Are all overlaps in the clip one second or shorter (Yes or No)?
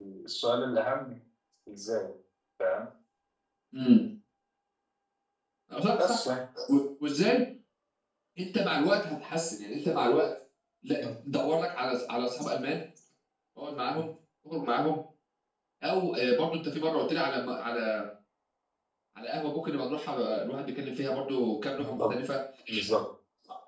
Yes